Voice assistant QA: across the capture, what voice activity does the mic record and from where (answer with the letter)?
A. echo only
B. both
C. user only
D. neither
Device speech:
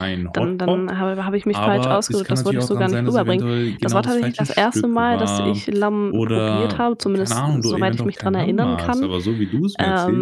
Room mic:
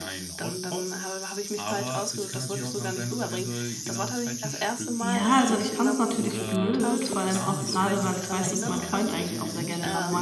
B